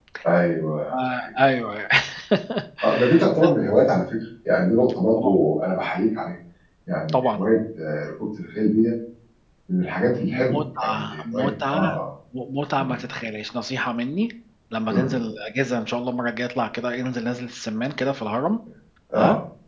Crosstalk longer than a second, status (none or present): present